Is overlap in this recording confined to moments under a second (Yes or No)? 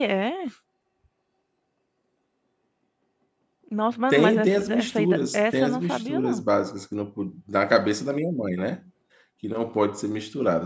No